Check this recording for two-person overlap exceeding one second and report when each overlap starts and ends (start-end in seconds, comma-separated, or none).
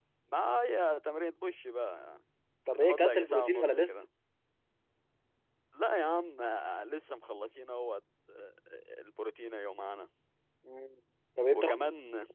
2.7-4.0